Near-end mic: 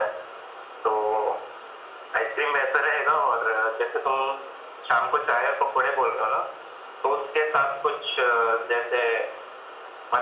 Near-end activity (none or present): none